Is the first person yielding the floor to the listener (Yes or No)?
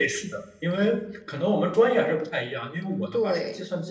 No